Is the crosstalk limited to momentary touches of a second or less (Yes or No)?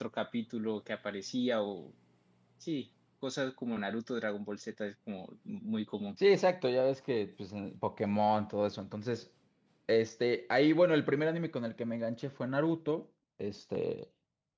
Yes